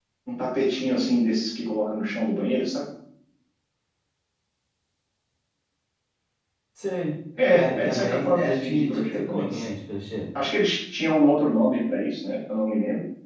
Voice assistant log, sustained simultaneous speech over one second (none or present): present